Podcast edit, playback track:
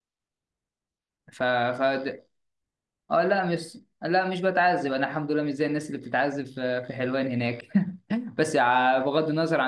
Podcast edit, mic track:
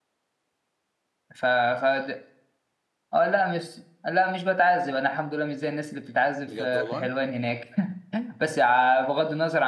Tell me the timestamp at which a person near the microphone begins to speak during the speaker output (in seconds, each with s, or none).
6.5 s